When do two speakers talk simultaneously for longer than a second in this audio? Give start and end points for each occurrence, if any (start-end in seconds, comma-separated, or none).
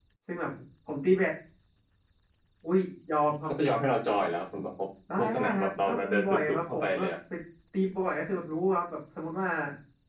5.2-7.1